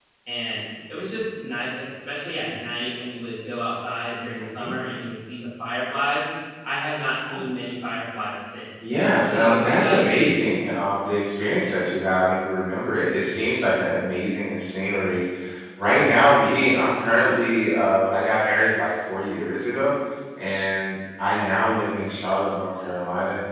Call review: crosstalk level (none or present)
present